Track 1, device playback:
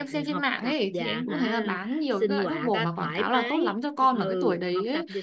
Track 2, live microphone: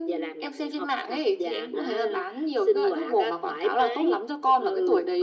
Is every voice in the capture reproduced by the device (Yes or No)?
Yes